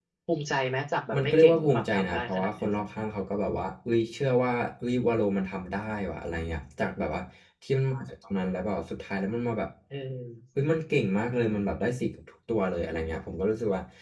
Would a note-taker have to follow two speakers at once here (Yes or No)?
Yes